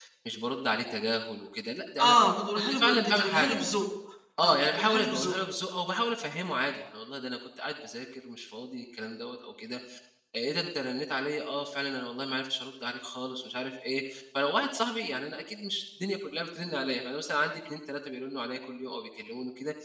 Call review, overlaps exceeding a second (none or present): present